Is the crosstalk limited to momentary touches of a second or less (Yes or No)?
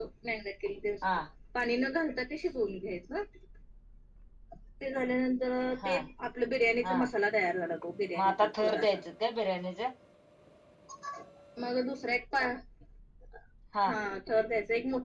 Yes